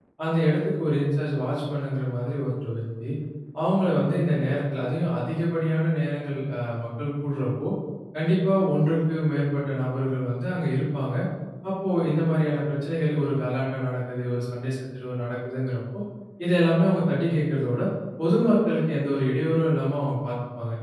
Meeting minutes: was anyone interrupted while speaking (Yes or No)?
No